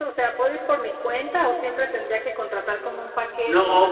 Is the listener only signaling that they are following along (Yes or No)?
No